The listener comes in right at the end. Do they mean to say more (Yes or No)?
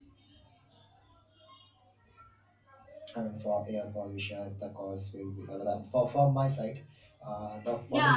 Yes